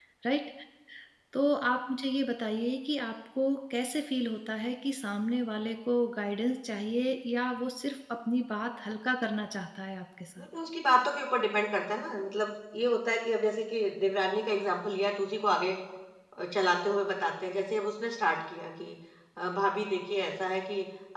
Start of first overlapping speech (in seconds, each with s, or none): none